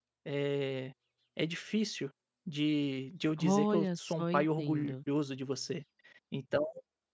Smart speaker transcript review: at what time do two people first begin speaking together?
3.4 s

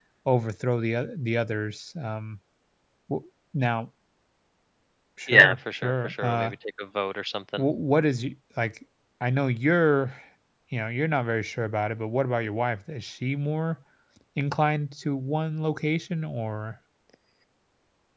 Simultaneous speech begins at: 5.3 s

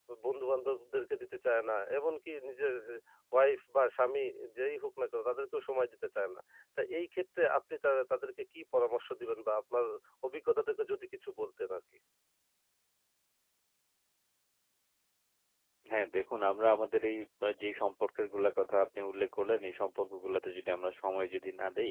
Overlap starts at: none

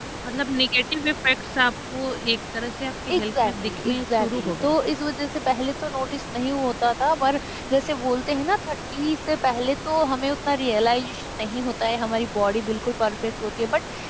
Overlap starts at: 3.1 s

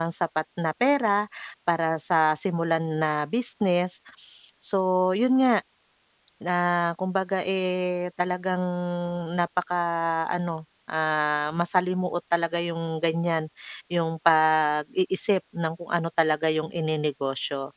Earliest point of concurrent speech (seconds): none

